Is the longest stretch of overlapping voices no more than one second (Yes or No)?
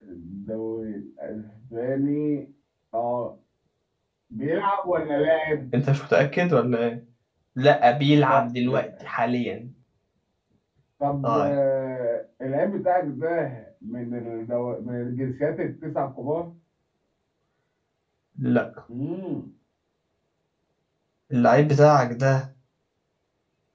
Yes